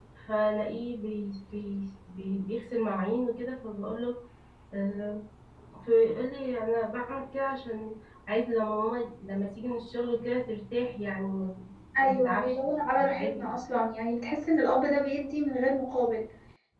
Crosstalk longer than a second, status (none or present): present